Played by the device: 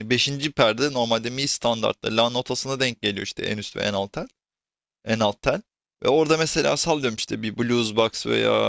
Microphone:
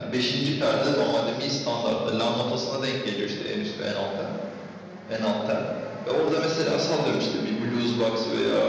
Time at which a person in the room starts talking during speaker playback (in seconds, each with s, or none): none